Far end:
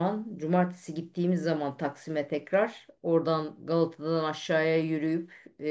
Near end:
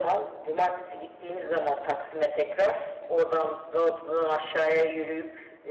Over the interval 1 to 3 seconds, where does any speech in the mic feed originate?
echo only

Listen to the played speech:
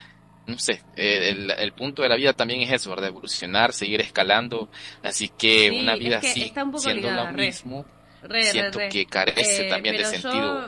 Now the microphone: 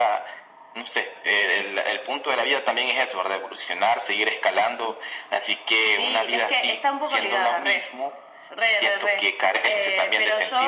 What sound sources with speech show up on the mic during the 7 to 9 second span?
echo only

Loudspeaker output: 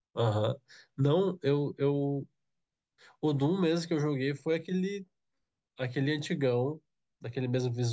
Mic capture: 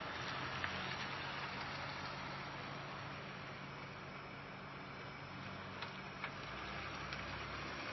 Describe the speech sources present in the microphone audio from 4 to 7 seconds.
neither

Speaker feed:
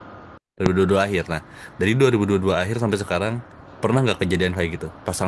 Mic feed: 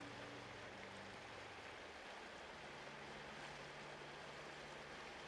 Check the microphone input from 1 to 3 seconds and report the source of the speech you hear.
neither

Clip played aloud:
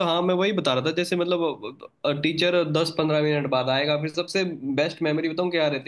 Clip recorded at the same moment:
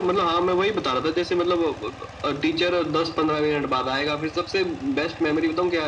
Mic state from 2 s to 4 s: echo only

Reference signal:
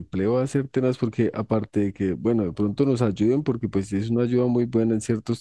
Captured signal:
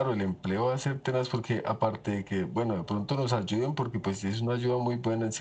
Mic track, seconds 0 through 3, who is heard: echo only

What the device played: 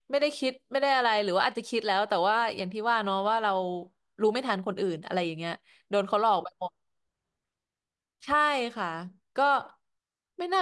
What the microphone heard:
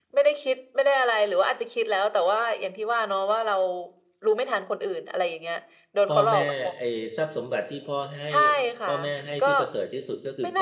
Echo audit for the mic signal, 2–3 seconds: echo only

